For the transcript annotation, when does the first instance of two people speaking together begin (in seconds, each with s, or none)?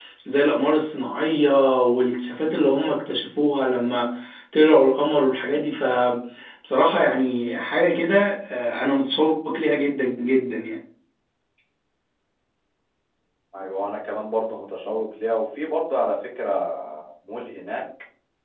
none